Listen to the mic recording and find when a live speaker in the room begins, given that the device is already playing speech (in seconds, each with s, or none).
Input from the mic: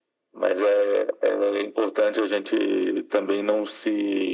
none